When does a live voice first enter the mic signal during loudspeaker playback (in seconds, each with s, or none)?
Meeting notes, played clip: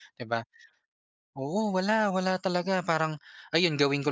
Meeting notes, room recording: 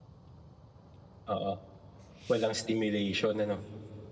1.2 s